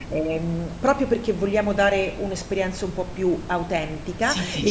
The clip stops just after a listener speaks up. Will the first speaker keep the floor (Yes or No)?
No